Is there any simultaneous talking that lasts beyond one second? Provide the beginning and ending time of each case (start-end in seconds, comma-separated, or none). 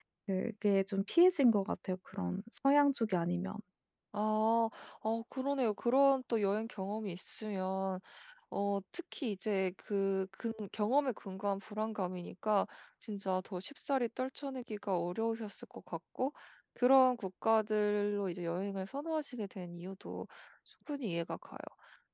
none